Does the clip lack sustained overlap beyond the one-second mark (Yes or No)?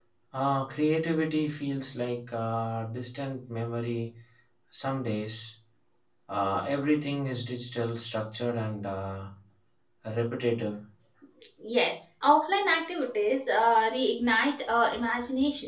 Yes